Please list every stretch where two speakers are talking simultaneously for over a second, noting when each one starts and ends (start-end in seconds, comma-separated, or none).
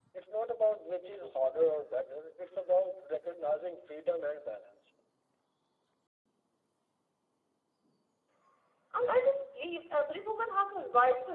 none